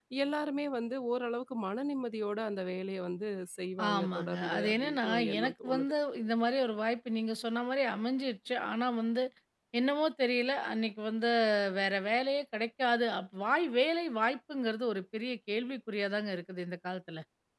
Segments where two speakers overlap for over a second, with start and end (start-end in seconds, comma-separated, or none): 3.9-5.9